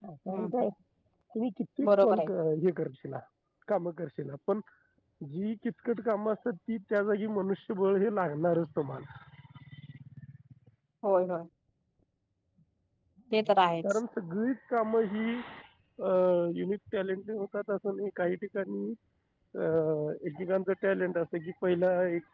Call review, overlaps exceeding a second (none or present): none